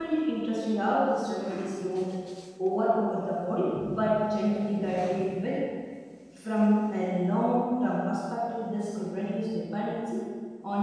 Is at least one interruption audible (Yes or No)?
No